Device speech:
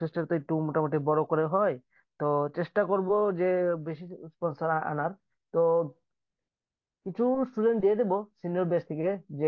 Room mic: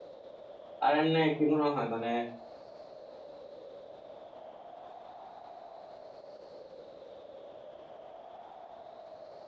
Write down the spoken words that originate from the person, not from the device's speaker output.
আর এমনি কি মনে হয় মানে

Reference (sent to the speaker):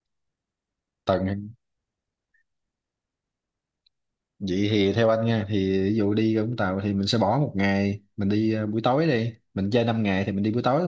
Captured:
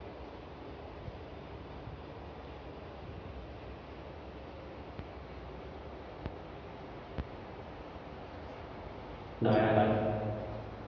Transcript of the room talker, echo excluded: rồi rồi rồi,

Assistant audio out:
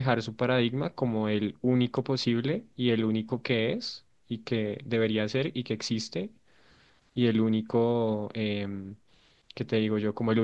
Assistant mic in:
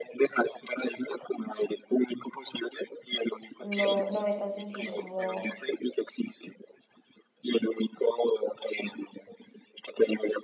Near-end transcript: no, no me es tan sencillo como

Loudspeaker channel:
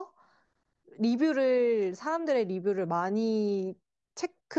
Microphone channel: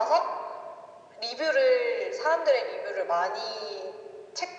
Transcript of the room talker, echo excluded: none

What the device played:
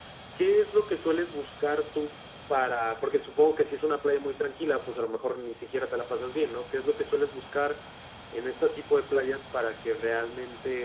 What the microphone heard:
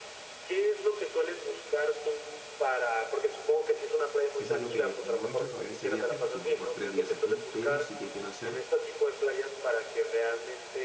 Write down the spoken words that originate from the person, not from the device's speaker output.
Es algo que no he hecho todavía en este viaje, recién tengo tres días aquí, pero sí que quiero hacer

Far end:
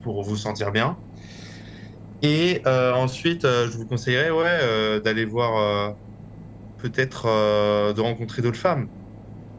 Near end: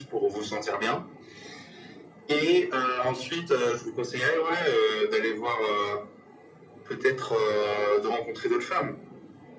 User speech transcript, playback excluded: none

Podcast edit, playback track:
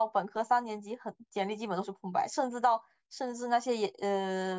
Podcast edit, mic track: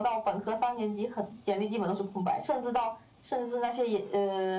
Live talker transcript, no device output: none

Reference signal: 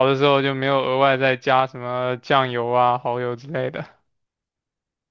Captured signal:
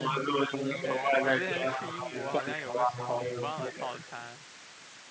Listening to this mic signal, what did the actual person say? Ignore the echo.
对，我之前去英国好像有个什么五磅的套餐，

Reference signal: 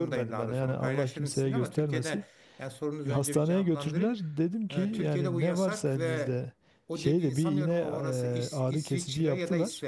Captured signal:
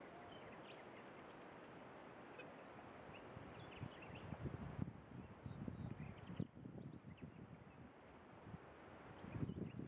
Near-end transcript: none

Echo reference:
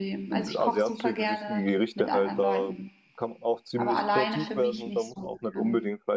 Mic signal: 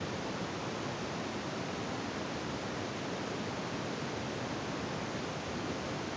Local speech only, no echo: none

